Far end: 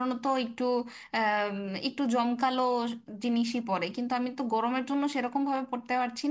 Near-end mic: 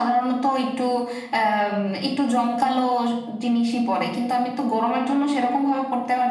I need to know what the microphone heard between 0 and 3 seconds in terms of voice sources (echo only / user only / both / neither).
echo only